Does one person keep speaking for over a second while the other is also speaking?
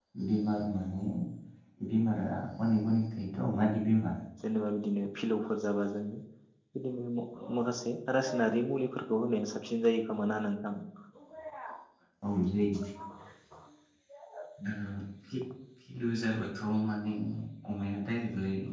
No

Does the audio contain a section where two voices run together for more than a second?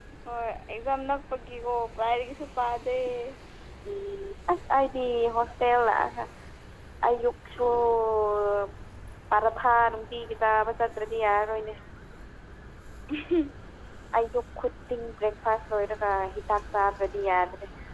No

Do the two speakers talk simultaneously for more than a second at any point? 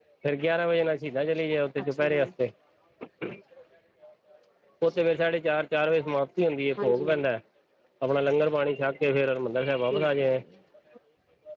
No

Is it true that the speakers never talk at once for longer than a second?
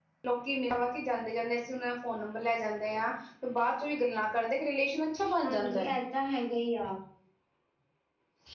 Yes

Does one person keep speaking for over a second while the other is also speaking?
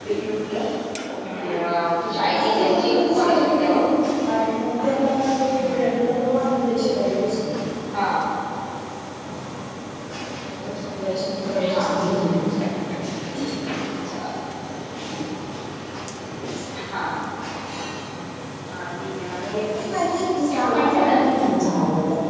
Yes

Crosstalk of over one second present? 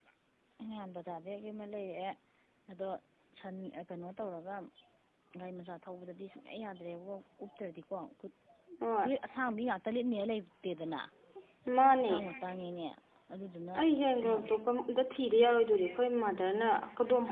No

